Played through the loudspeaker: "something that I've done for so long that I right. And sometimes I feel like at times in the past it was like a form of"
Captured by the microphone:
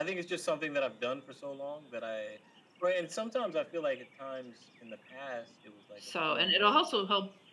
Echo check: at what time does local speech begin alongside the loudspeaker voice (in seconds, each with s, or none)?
5.9 s